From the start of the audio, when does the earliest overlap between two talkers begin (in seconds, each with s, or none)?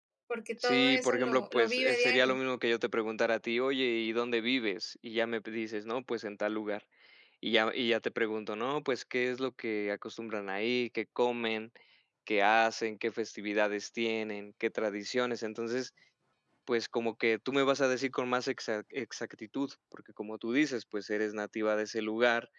0.6 s